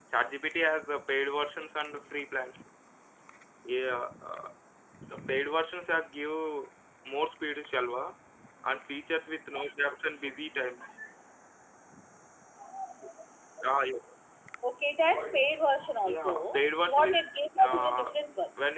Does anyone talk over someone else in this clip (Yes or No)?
Yes